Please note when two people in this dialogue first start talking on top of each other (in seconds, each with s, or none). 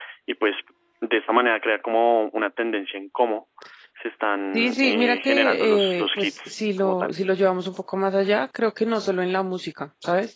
4.5 s